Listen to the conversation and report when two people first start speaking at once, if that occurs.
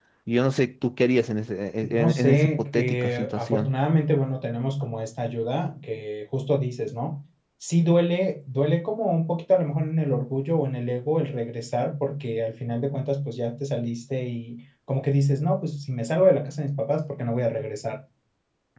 2.0 s

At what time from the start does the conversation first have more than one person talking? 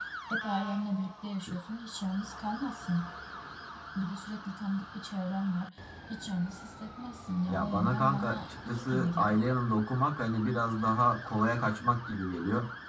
7.5 s

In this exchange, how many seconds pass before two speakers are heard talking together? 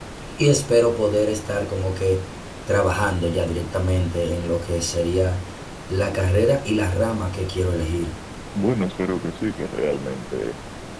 none

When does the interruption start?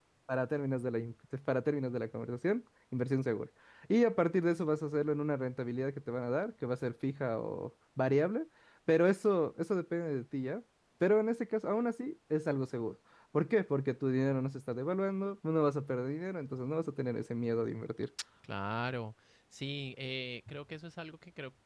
none

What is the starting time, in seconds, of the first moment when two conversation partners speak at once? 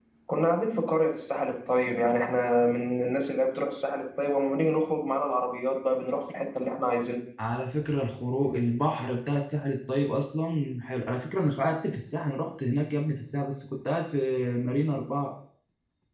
none

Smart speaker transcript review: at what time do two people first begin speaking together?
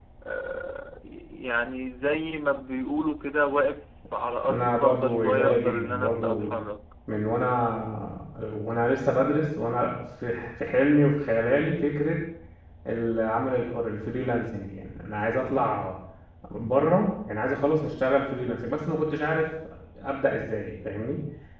4.4 s

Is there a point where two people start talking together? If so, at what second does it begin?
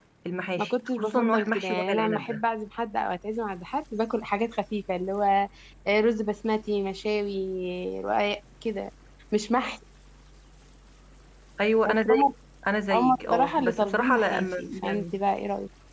0.6 s

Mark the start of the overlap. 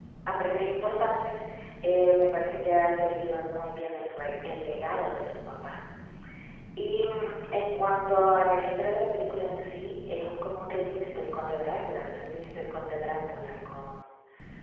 none

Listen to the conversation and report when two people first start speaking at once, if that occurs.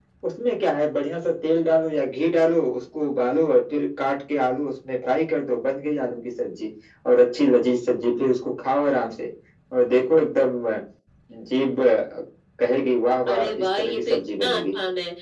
13.3 s

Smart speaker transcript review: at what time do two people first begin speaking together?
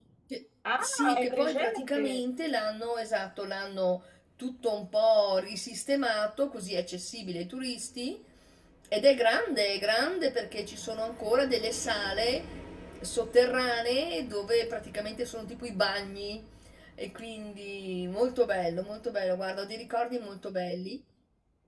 0.8 s

